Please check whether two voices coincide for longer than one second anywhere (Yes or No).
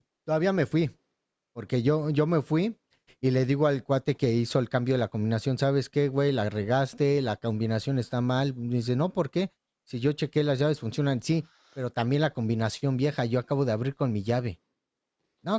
No